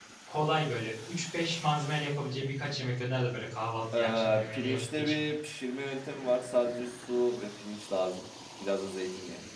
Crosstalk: present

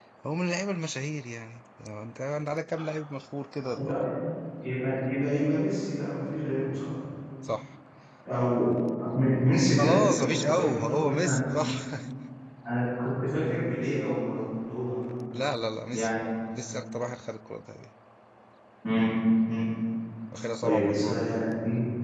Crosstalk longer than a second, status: present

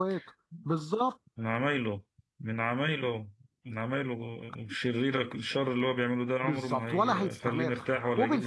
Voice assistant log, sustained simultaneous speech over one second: present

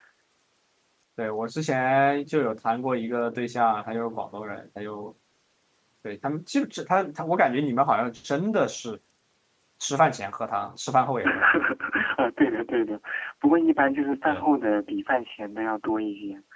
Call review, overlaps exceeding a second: none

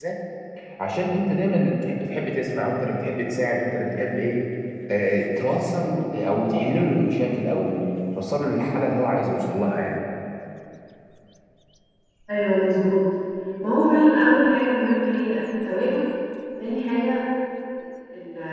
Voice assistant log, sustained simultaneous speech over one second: none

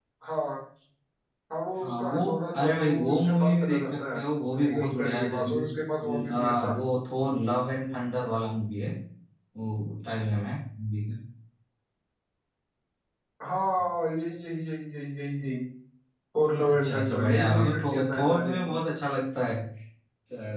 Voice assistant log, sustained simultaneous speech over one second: present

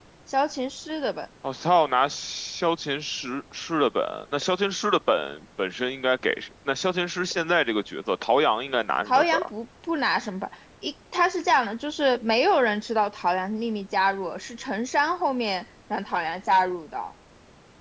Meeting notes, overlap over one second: none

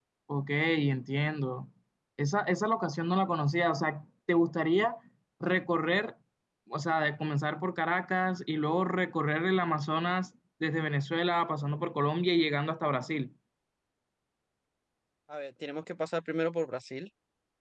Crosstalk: none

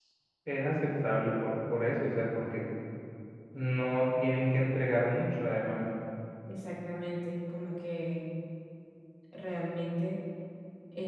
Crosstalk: none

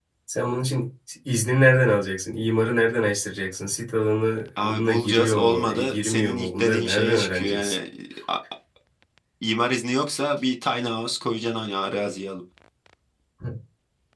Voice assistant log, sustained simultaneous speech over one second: present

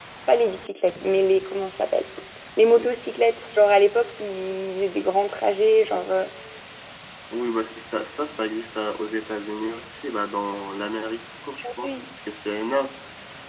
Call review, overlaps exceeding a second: none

